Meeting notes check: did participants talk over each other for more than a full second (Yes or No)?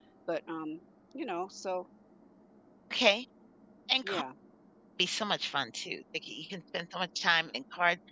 No